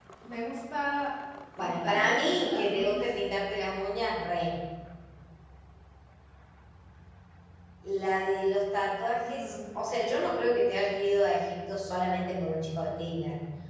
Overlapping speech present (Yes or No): Yes